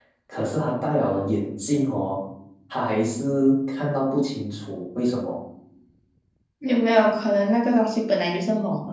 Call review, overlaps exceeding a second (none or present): none